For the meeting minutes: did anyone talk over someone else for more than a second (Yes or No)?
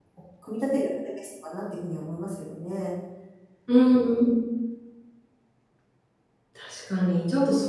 No